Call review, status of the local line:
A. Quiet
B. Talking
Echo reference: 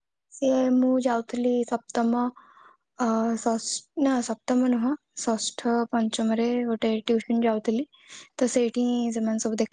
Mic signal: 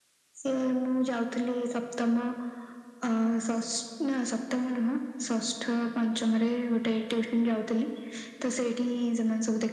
A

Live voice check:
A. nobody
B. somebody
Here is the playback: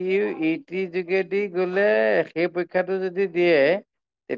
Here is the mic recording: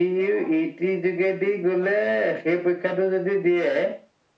A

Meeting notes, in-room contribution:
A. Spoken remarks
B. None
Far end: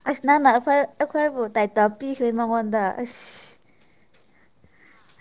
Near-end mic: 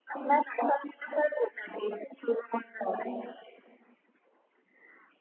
B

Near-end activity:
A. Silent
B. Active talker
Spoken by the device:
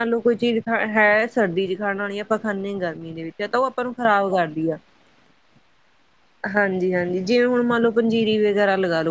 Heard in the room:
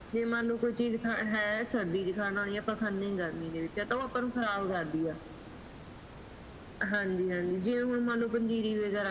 A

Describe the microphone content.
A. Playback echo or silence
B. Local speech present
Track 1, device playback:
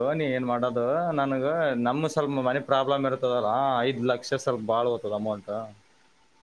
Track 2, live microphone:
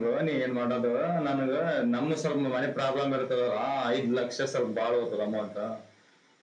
A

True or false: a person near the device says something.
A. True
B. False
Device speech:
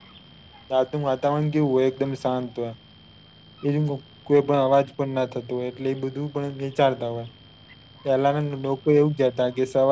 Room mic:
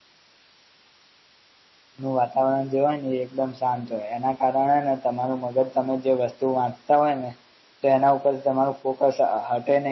A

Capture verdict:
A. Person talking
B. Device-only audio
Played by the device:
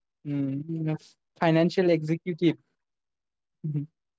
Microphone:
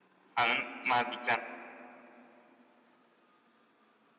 A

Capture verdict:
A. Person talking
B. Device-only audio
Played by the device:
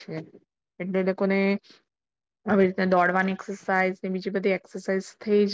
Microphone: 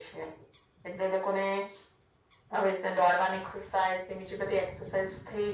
B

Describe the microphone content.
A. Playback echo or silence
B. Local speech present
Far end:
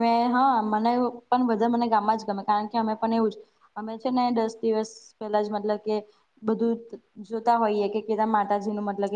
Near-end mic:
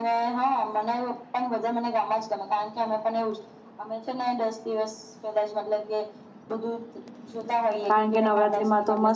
B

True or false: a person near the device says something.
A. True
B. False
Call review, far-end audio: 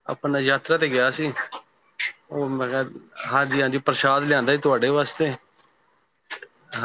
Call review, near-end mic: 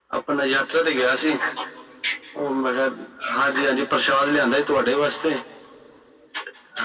B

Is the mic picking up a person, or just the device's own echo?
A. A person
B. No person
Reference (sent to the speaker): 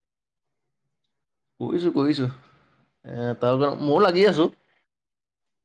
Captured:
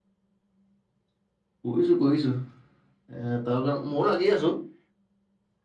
B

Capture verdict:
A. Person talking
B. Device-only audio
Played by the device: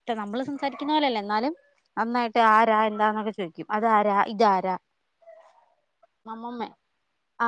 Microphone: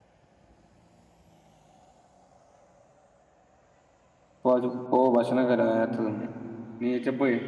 A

